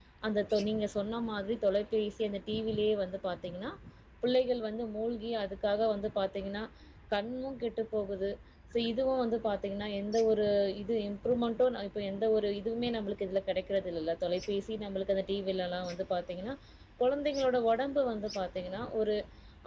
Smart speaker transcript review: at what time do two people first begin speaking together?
none

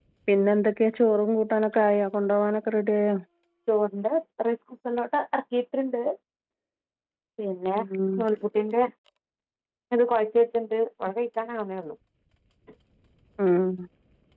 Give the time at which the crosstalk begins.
none

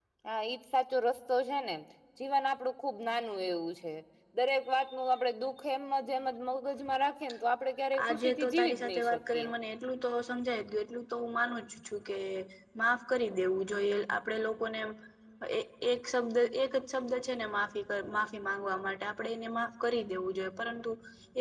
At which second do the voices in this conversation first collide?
7.9 s

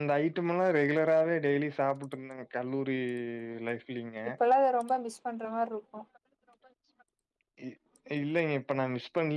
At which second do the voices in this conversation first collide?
none

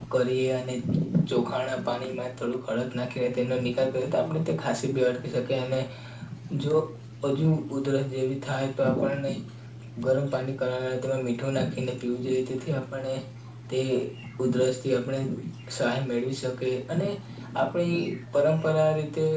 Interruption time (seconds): none

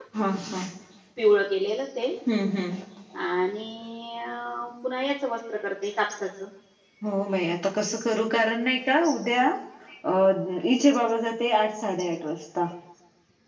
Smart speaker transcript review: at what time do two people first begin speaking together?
none

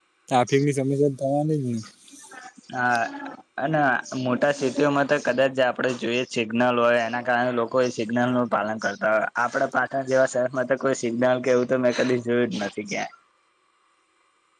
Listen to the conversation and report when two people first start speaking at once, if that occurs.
none

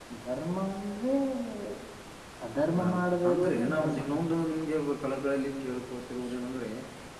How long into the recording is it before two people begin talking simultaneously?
2.8 s

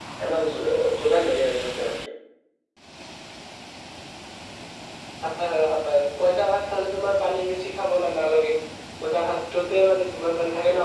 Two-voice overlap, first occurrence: none

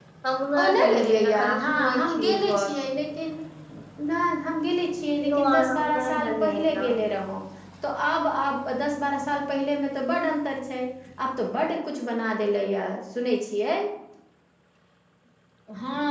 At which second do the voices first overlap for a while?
0.6 s

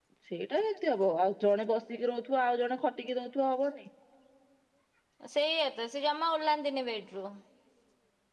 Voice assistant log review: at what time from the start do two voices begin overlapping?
none

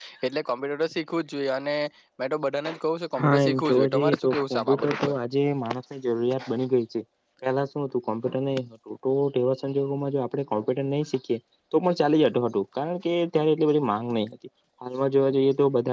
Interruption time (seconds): 3.2 s

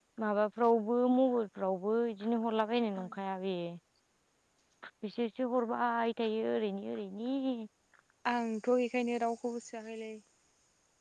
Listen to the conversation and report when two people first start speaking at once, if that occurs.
none

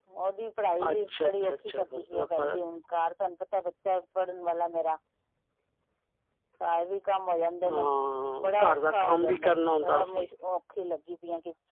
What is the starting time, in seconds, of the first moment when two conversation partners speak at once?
0.9 s

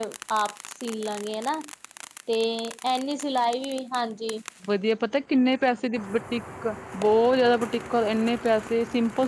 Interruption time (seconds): none

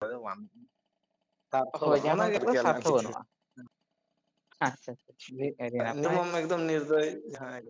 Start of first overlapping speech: 1.8 s

